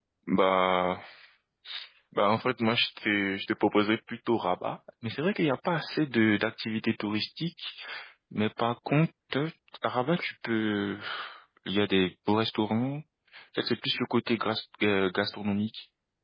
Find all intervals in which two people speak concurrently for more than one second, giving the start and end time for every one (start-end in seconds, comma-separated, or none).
none